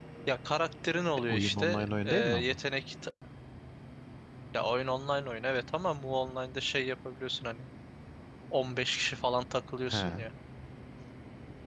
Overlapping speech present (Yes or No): Yes